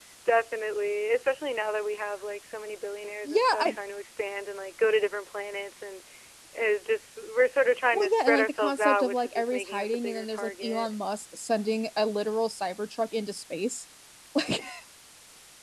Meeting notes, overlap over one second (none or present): present